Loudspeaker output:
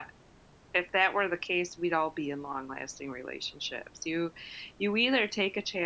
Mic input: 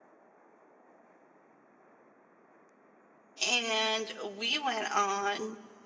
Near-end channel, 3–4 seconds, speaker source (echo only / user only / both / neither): user only